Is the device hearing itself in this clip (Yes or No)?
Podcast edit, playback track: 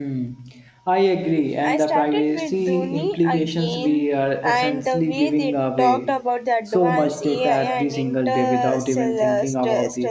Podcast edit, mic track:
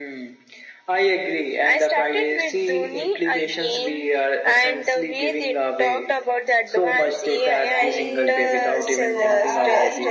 Yes